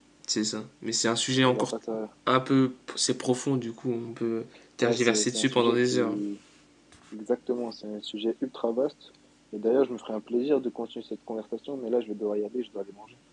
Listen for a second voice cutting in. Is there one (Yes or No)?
Yes